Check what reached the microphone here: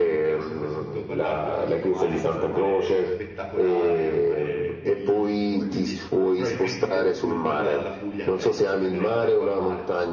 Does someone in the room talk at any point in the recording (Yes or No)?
Yes